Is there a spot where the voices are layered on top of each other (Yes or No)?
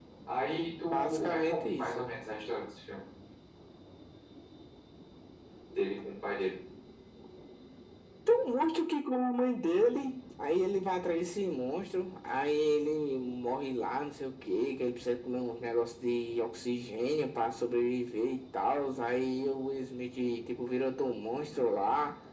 Yes